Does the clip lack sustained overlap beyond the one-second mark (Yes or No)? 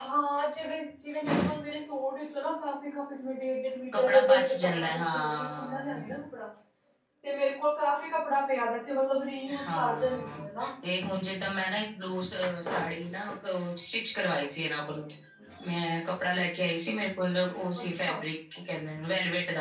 No